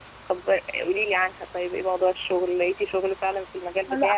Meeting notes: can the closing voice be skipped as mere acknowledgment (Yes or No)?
No